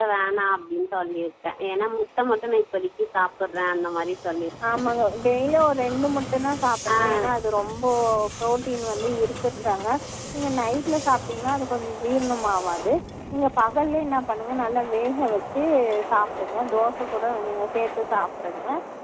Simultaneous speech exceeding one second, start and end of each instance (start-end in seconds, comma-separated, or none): none